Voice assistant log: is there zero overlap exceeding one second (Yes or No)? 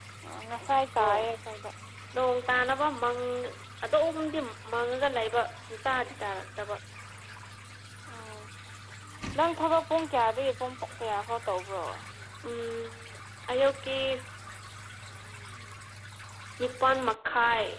Yes